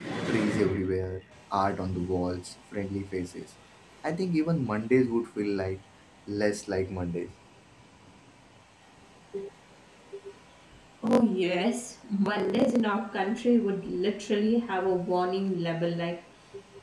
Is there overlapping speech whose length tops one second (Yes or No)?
No